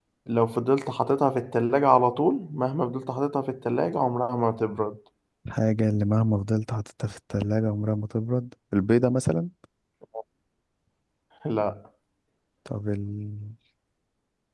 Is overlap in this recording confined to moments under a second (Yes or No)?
Yes